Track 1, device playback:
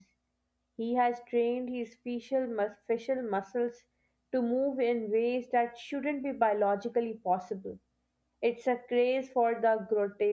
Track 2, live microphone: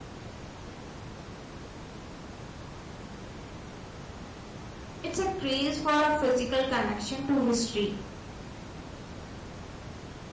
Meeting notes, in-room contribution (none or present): present